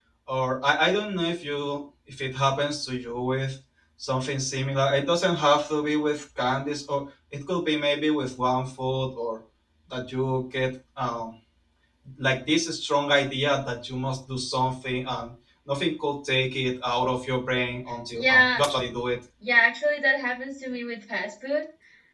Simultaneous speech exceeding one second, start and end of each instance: none

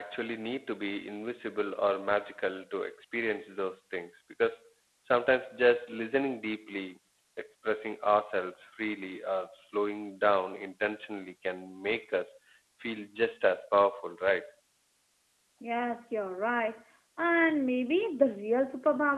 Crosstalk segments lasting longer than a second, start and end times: none

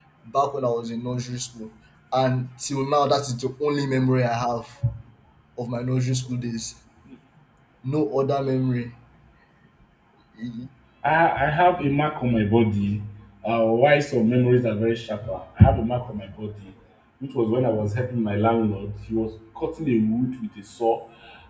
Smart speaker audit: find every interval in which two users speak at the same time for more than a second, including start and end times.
none

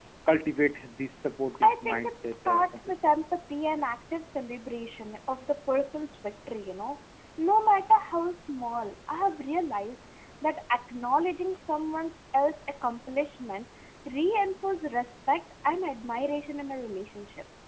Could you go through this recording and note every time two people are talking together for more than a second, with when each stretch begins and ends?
1.6-3.1

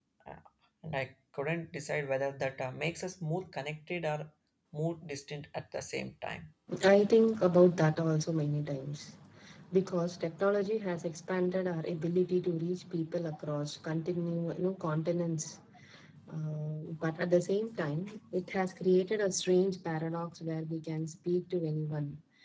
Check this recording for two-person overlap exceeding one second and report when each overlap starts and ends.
none

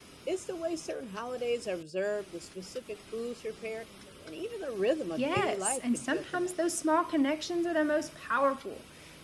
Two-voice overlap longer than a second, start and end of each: 5.2-6.5

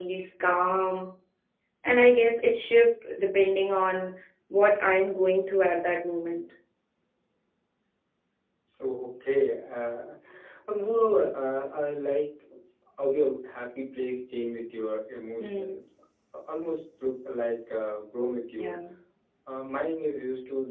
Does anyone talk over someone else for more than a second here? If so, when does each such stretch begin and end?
none

